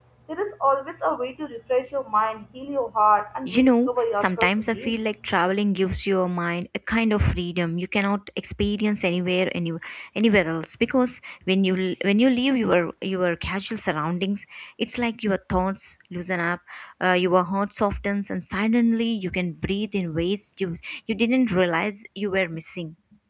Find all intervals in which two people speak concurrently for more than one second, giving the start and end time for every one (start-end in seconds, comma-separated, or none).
3.5-5.0